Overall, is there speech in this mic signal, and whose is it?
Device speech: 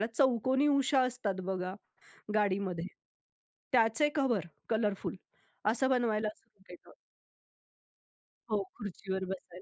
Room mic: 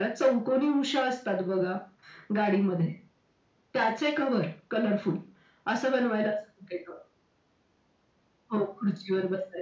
echo only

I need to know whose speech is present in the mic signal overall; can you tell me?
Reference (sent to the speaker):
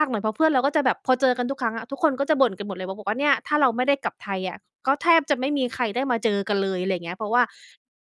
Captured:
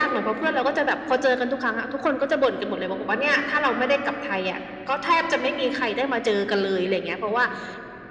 echo only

